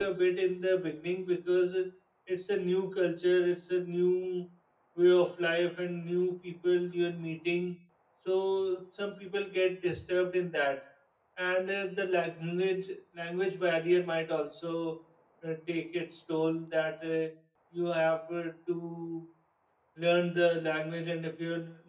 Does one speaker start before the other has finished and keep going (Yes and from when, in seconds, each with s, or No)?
No